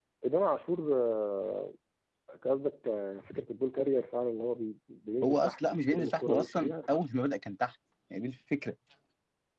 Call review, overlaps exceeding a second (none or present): present